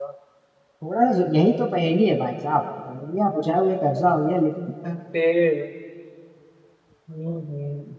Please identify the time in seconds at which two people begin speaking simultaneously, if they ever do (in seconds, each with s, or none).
none